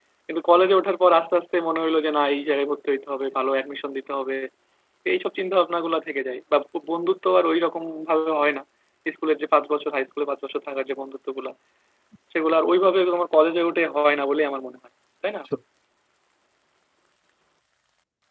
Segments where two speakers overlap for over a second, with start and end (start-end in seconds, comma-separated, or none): none